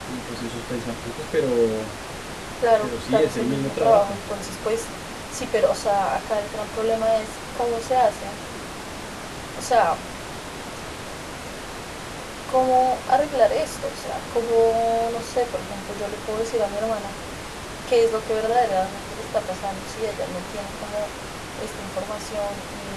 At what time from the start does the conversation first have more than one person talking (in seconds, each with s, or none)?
2.8 s